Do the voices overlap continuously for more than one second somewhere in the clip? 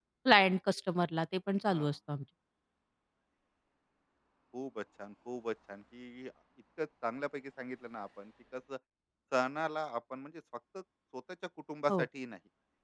No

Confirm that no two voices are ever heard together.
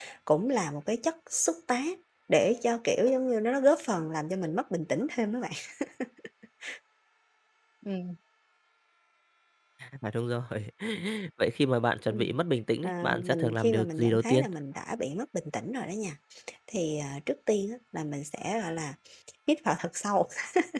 No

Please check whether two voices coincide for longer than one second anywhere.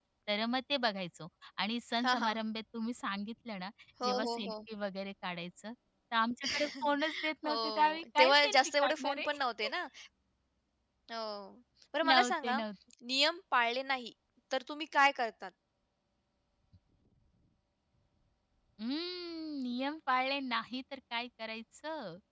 Yes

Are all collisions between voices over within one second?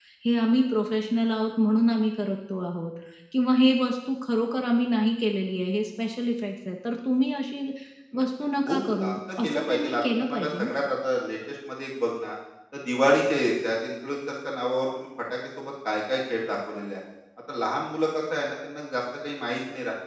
No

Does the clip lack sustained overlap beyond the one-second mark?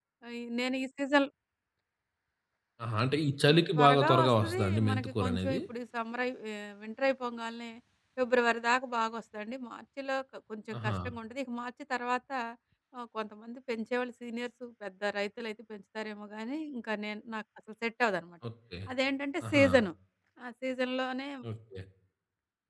No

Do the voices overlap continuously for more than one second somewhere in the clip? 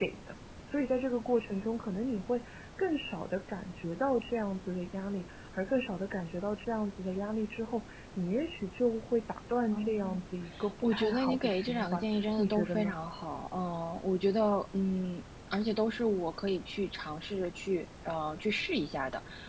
Yes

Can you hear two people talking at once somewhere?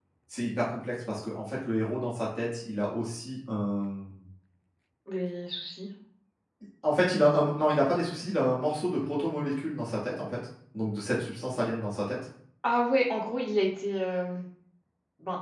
No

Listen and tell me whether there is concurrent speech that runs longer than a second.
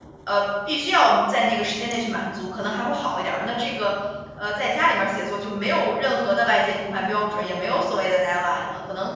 No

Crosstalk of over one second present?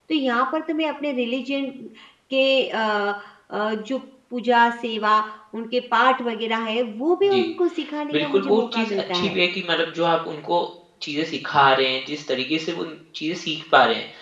Yes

